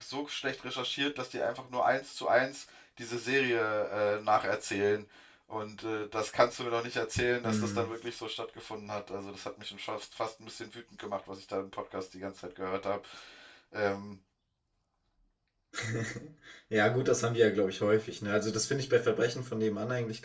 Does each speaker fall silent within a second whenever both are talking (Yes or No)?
Yes